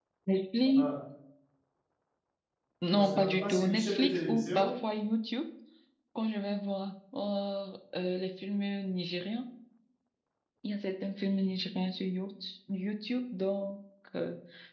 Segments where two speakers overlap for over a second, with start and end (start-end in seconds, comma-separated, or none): 2.9-4.8